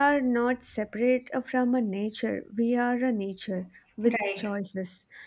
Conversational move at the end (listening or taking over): listening